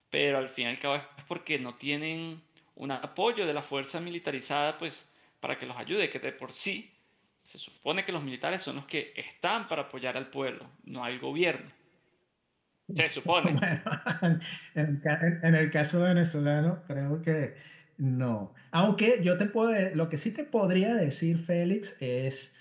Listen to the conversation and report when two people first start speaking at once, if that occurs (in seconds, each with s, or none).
none